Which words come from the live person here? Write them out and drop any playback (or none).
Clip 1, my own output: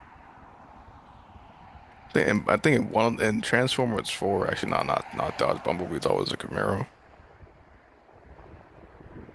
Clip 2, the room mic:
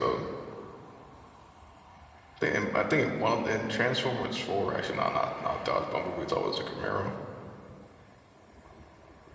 none